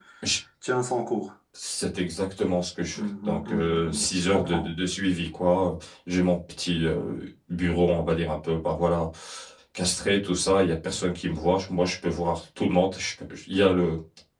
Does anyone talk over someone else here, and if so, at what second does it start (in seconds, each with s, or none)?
2.9 s